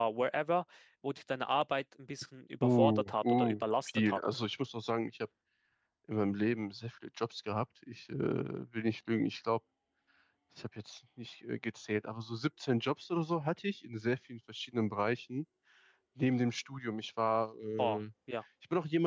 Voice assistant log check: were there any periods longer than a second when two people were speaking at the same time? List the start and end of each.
2.6-4.2

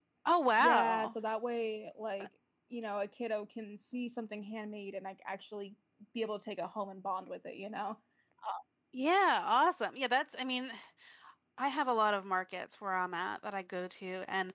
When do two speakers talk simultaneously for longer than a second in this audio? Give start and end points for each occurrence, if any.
none

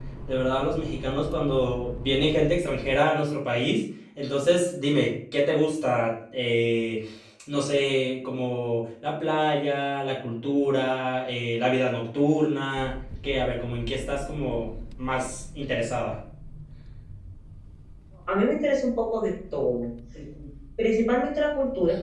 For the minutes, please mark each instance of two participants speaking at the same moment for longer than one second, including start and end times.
none

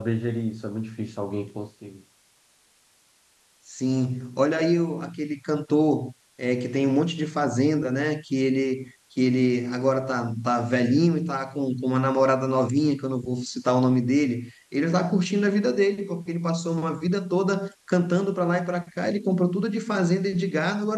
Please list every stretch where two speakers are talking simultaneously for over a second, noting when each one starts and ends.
none

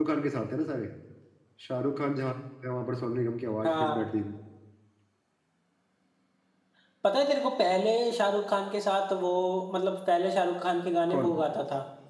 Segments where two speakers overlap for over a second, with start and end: none

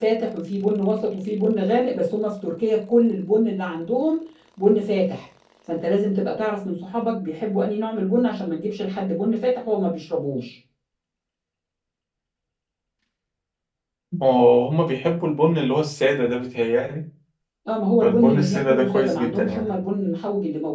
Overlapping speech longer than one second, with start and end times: 18.0-19.7

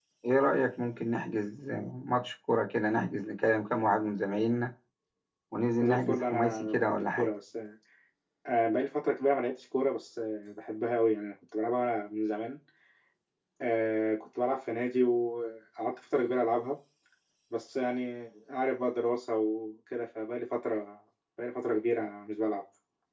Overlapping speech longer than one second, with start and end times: 5.8-7.3

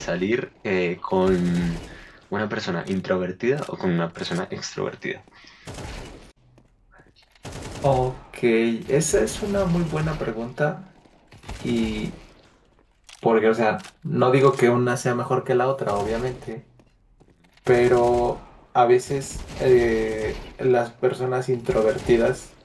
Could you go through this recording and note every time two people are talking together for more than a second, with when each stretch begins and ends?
none

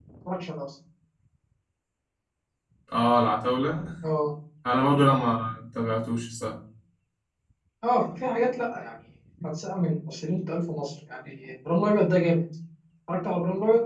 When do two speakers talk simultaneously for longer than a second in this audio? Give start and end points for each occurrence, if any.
none

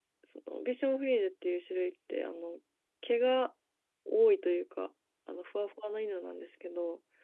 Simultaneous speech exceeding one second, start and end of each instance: none

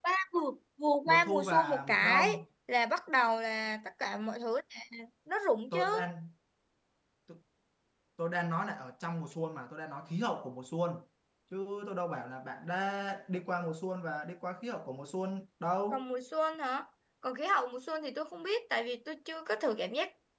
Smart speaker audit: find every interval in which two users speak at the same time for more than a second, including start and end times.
1.1-2.3

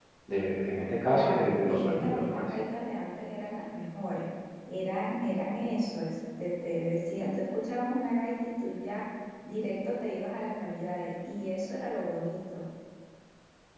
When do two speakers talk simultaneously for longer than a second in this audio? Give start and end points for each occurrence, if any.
1.1-2.4

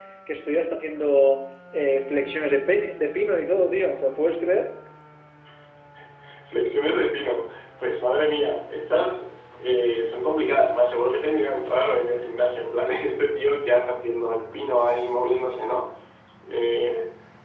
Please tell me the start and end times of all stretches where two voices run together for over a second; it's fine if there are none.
none

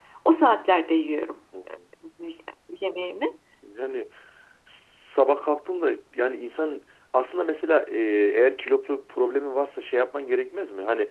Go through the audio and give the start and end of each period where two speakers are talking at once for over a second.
none

